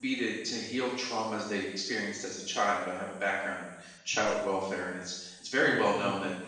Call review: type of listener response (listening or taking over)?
listening